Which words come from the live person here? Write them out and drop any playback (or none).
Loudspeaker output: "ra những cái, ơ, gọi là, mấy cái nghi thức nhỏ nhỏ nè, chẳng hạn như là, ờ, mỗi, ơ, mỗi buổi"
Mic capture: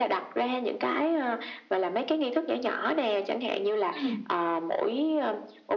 ừm.